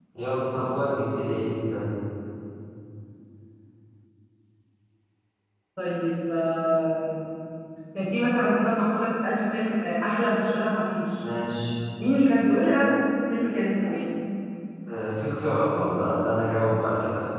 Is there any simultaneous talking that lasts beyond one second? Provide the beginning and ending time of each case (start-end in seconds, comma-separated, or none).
none